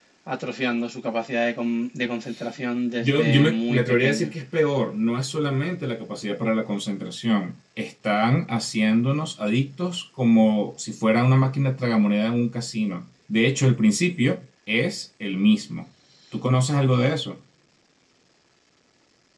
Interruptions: present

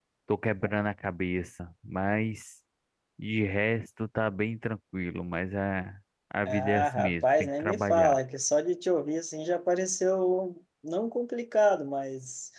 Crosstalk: present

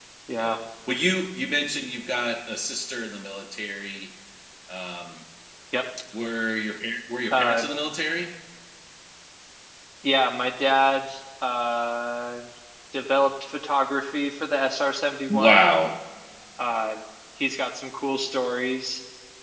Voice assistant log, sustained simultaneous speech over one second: none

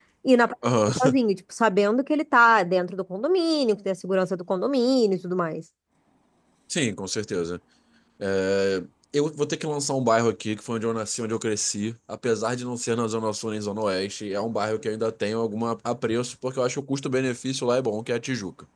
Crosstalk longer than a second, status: none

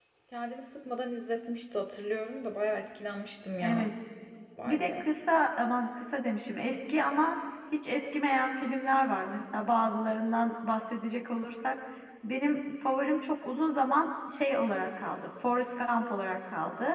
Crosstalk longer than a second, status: none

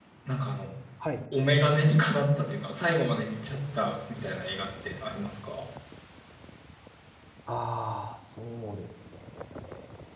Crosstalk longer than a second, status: none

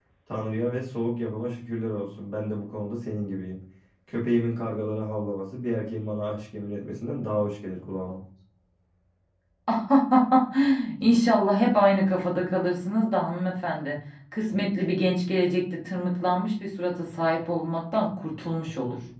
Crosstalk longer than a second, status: none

